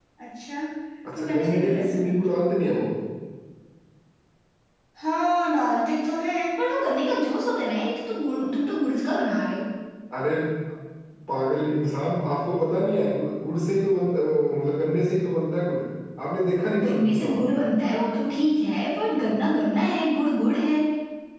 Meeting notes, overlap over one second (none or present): present